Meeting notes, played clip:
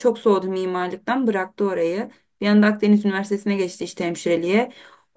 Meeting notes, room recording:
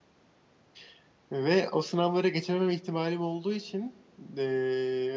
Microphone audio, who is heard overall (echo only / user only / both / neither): user only